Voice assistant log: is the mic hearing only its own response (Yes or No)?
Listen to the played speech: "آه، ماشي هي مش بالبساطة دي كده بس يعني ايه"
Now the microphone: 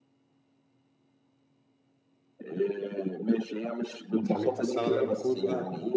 No